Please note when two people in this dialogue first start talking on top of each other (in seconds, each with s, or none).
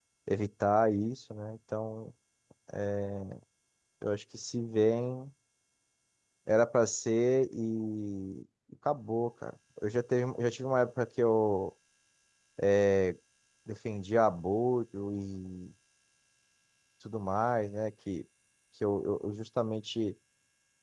none